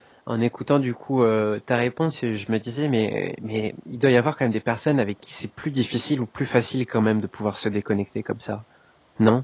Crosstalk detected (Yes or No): No